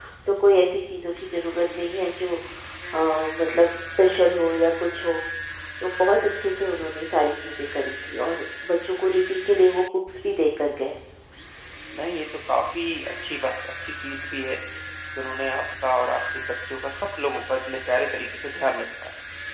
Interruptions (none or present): none